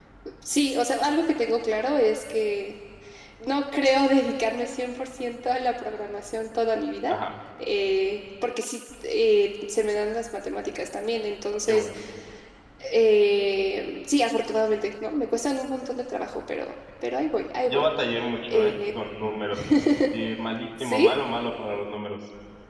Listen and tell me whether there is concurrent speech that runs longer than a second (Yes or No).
No